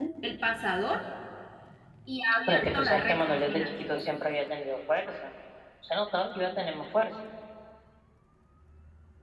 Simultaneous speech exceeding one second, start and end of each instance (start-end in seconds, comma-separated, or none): 2.5-3.7